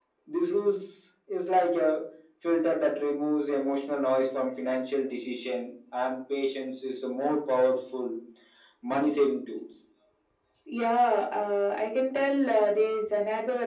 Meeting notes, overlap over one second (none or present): none